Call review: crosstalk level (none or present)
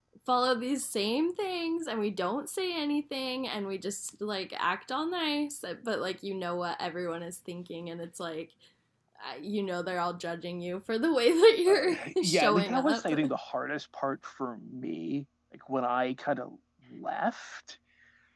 present